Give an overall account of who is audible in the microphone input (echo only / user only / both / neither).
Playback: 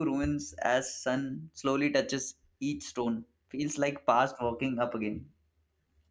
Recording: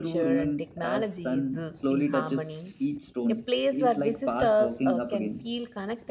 both